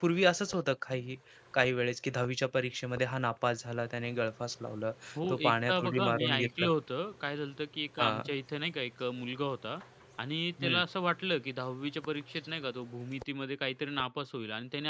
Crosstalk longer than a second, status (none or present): present